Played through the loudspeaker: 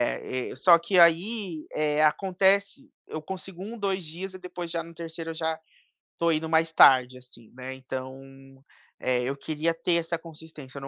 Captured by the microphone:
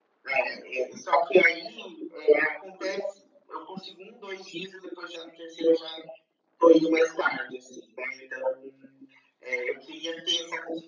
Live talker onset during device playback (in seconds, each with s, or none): none